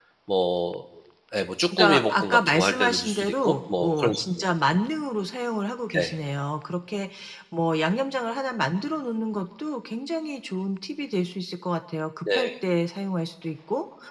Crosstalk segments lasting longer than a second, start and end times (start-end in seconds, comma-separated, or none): 1.8-4.2